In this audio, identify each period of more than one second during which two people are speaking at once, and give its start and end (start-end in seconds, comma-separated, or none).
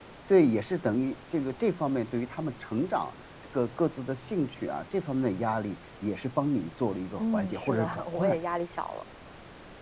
7.2-8.4